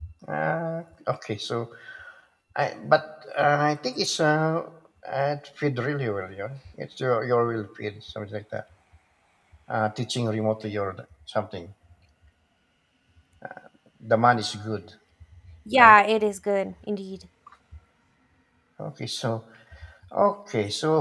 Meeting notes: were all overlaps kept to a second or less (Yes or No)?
Yes